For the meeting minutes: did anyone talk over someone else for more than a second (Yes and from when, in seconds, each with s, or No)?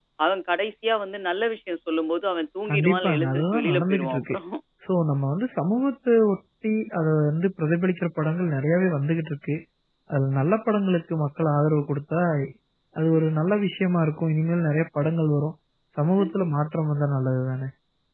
Yes, from 2.7 s